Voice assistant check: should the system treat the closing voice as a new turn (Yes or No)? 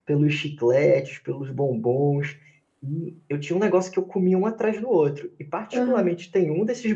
No